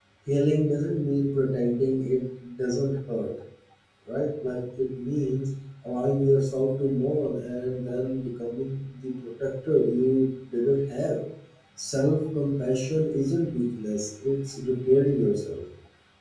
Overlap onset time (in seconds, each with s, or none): none